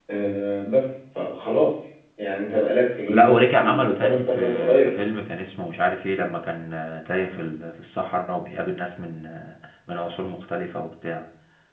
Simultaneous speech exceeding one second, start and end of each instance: 3.1-4.9

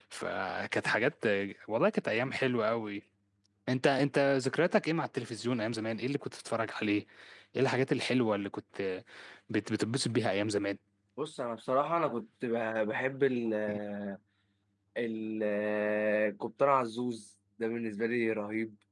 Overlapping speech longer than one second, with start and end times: none

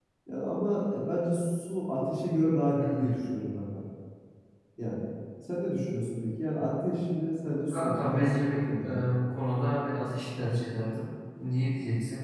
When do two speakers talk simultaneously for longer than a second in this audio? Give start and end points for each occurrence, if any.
7.7-9.2

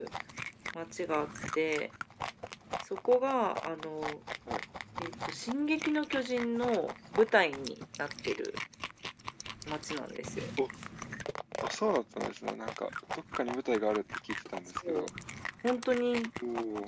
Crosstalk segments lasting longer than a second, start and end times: none

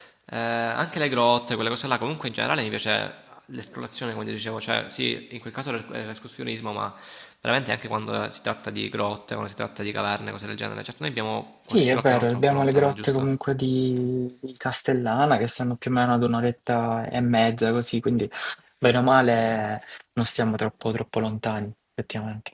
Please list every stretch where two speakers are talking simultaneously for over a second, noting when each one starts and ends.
11.7-13.3

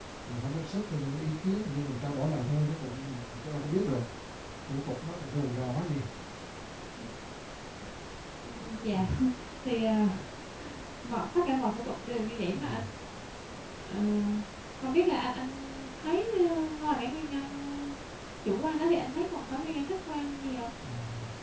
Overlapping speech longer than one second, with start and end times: none

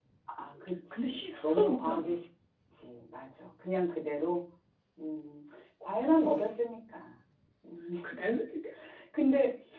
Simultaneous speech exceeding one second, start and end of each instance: 0.9-2.2

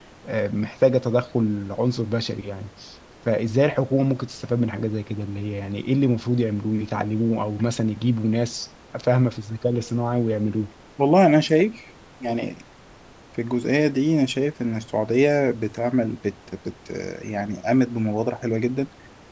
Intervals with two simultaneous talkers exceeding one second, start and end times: none

